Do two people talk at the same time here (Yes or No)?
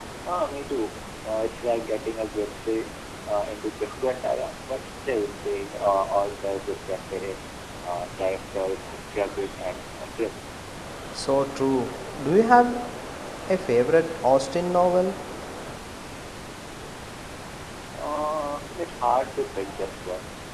No